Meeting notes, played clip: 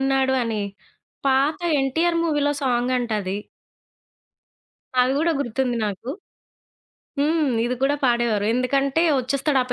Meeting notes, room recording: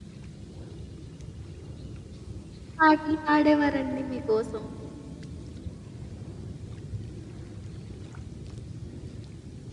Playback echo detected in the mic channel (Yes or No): No